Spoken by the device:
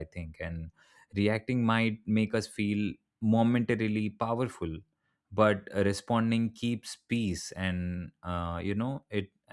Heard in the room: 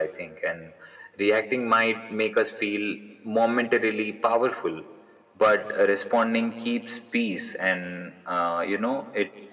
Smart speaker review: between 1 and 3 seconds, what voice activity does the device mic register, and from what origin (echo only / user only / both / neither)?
echo only